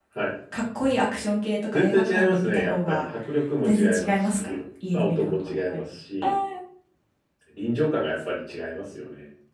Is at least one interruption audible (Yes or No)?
Yes